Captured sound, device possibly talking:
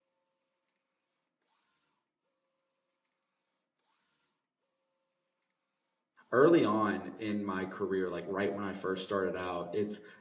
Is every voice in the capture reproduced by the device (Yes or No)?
No